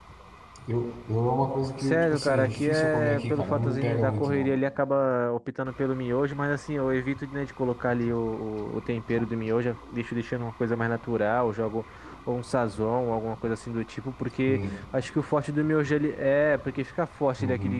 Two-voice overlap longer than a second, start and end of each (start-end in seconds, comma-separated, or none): 1.8-4.5